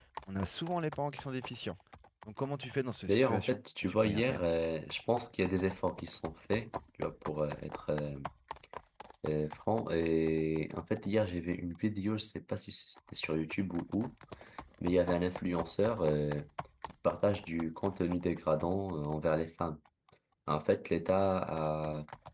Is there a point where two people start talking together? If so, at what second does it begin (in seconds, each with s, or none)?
3.1 s